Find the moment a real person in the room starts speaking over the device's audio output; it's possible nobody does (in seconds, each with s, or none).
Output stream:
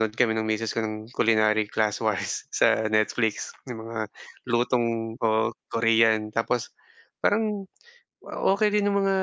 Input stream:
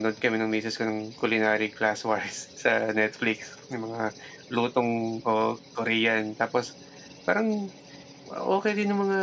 none